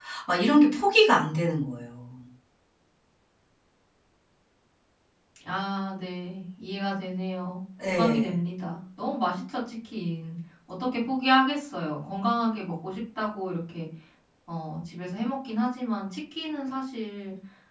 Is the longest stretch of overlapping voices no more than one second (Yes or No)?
Yes